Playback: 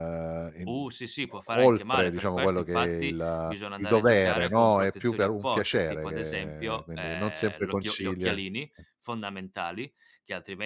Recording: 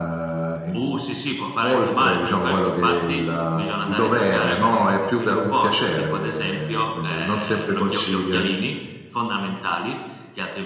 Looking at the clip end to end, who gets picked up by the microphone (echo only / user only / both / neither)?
echo only